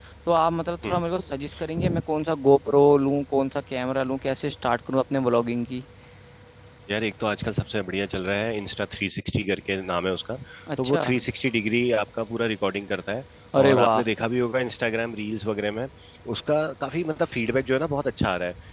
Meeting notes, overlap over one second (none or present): none